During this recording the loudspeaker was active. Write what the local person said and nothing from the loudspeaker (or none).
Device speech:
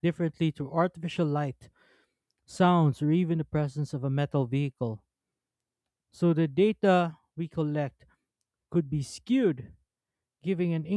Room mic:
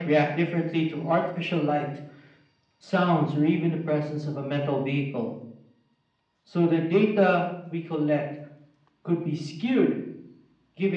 none